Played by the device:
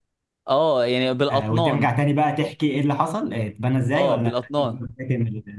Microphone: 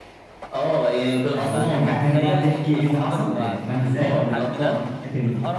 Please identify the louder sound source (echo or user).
echo